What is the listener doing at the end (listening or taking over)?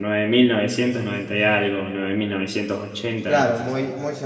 taking over